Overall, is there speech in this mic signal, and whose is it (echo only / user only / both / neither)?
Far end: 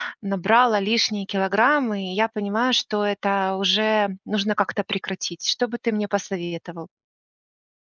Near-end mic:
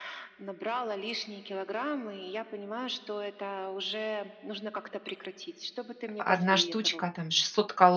both